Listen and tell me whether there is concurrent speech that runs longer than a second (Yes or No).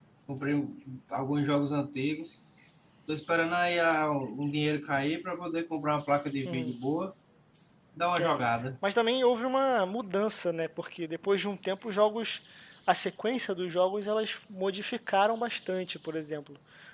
No